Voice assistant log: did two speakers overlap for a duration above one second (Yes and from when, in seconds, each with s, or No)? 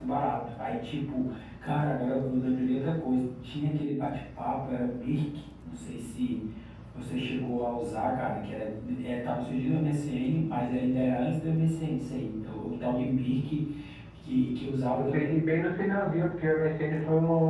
No